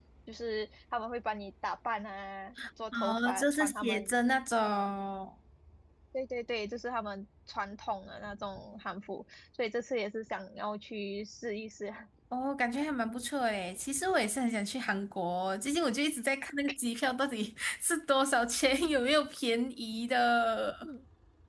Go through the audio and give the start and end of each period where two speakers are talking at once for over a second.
2.9-4.1

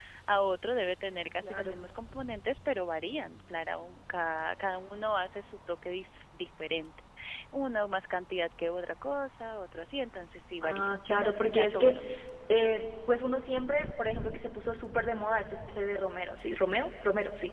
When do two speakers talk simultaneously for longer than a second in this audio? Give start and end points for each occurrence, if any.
10.6-12.0

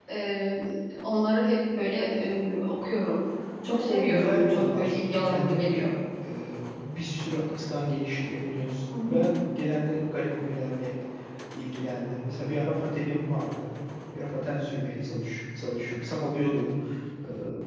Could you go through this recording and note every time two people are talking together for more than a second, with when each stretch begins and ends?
3.7-5.7

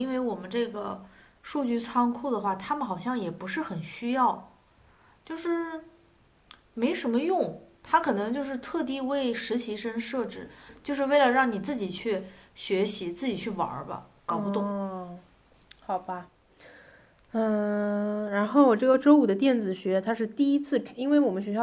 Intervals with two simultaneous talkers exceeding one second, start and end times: none

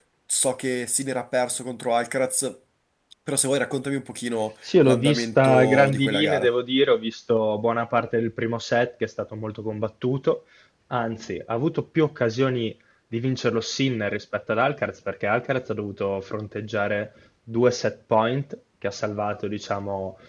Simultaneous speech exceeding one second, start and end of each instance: 4.8-6.5

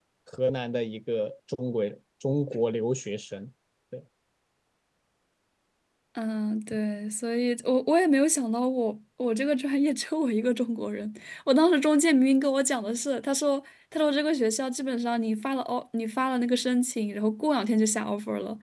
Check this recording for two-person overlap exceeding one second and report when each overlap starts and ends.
none

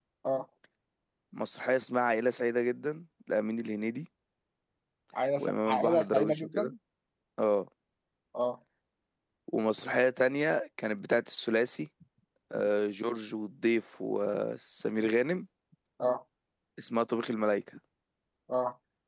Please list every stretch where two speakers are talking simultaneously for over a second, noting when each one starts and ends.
5.4-6.7

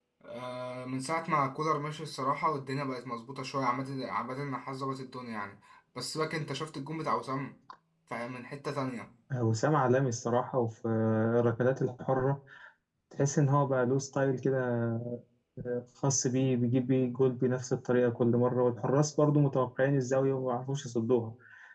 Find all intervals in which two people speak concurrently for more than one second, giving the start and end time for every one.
none

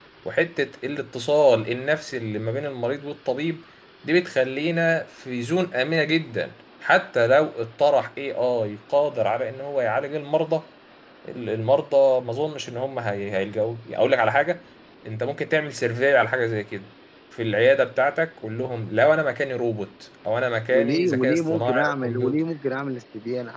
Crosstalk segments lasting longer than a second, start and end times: 20.7-22.4

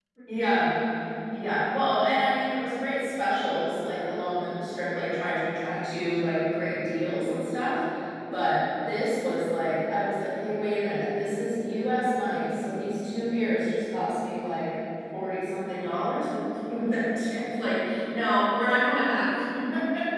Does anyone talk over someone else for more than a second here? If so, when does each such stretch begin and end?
none

